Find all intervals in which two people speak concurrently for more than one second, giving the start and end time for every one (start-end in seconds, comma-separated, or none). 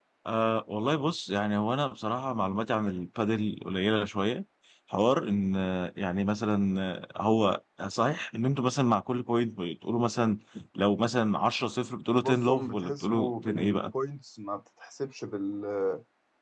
12.1-13.8